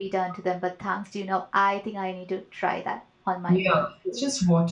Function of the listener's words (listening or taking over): taking over